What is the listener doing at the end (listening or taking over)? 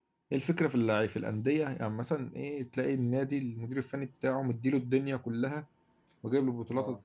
listening